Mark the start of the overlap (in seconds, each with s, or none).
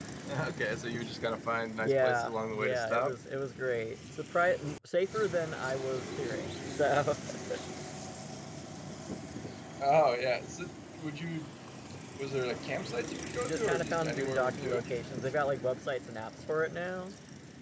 1.8 s